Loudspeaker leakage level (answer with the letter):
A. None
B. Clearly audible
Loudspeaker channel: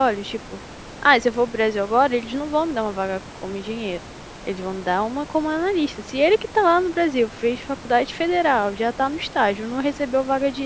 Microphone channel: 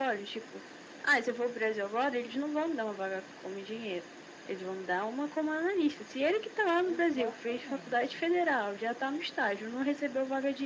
B